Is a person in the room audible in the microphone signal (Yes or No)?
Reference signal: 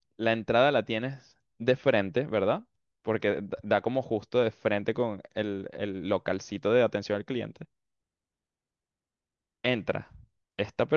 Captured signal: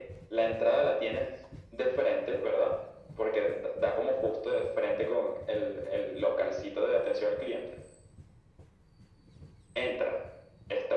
No